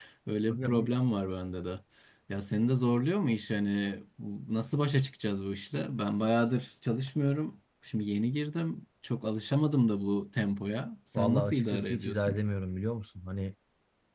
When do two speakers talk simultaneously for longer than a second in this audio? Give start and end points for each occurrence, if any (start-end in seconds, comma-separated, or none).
11.1-12.3